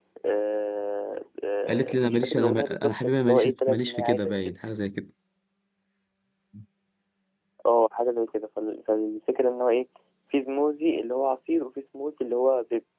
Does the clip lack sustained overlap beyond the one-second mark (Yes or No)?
No